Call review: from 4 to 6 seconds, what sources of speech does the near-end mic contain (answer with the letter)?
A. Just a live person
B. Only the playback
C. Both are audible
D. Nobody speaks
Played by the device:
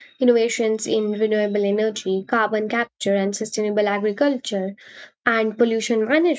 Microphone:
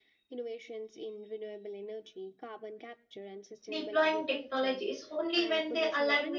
C